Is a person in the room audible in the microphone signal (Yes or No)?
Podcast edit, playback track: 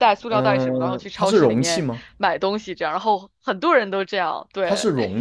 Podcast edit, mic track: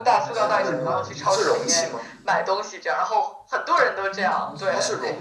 Yes